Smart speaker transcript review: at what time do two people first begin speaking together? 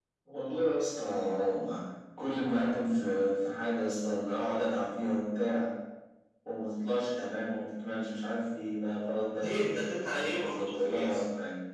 9.3 s

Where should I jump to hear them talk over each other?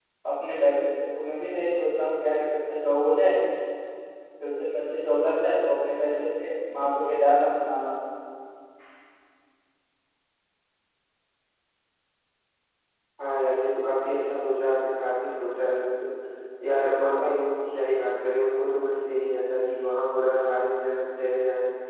none

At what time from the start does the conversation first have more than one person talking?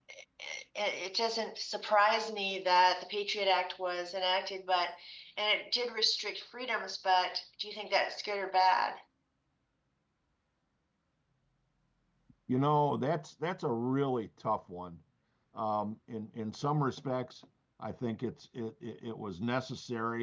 none

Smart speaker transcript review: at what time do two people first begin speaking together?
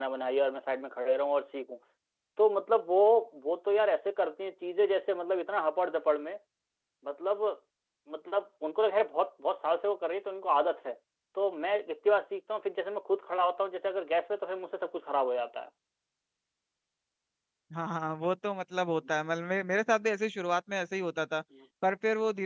none

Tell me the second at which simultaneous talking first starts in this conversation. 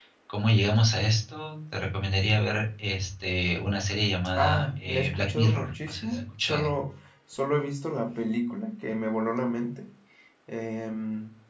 4.3 s

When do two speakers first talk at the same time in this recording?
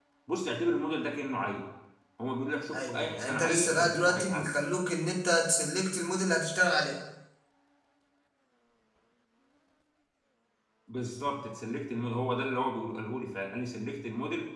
2.7 s

